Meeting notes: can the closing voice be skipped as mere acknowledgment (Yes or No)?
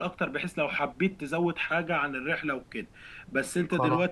Yes